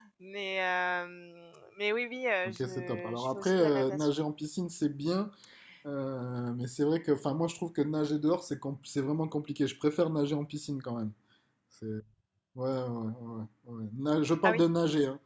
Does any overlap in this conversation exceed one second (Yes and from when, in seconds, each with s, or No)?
Yes, from 2.5 s